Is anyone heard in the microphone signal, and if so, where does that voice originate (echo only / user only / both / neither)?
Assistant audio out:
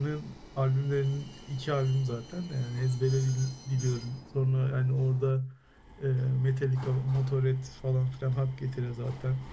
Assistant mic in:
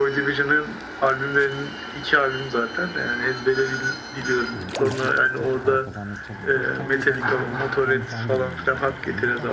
both